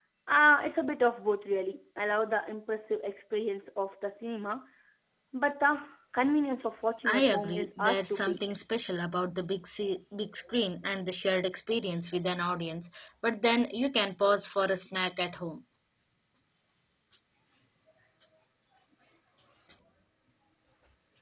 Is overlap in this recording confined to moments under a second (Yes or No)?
No